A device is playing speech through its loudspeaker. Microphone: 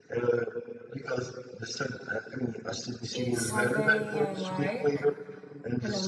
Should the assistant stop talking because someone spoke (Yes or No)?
Yes